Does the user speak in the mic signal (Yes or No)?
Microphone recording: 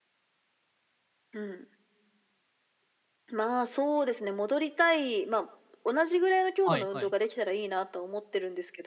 Yes